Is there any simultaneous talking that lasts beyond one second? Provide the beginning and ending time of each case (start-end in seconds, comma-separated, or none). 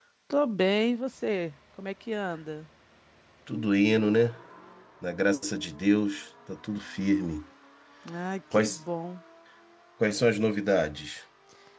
none